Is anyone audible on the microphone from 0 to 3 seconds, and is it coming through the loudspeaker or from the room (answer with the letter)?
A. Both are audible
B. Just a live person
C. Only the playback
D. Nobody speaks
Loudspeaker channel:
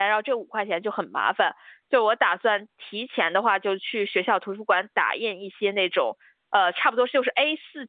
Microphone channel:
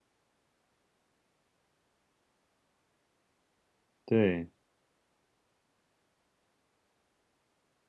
D